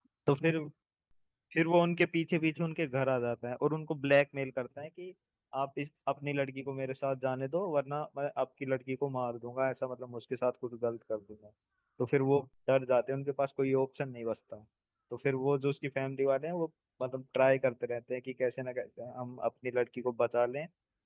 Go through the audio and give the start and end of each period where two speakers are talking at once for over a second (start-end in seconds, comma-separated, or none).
none